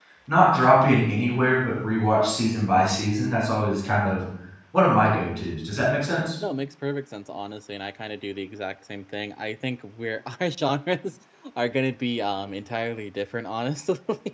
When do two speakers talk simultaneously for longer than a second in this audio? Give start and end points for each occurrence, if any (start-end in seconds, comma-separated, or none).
none